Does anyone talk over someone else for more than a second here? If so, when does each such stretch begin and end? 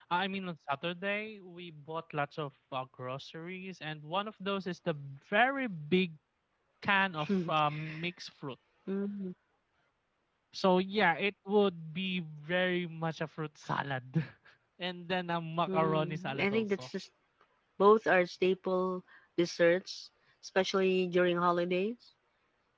15.7-16.9

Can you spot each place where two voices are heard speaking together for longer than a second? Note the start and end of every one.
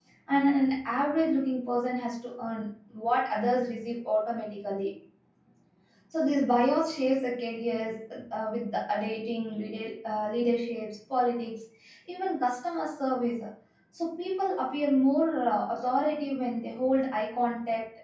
none

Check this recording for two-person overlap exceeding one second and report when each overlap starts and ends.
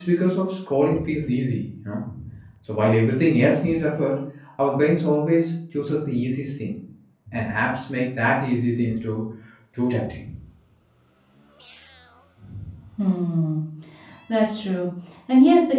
none

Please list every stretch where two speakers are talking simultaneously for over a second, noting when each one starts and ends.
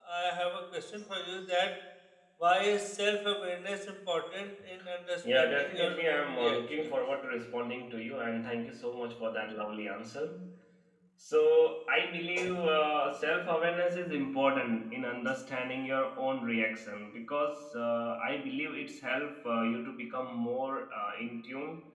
5.2-6.9

